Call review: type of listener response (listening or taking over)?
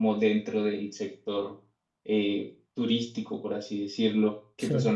listening